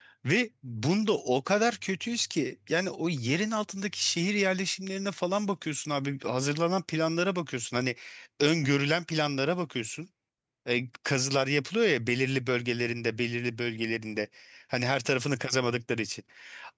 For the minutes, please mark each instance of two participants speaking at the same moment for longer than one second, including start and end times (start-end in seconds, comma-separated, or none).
none